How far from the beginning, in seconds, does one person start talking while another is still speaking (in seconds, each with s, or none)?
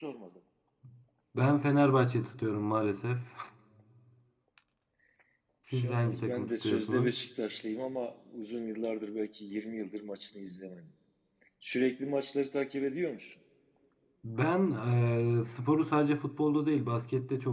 5.7 s